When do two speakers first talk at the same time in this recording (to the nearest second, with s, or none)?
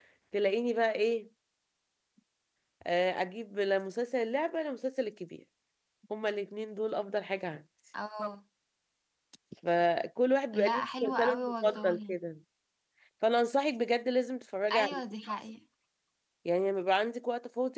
11 s